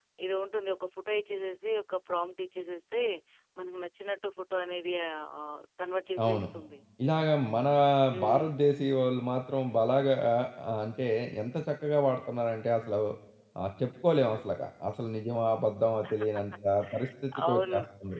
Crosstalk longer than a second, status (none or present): none